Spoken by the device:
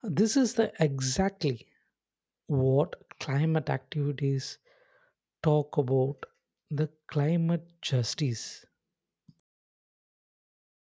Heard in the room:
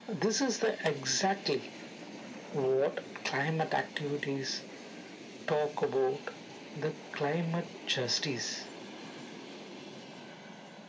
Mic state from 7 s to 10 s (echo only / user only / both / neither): echo only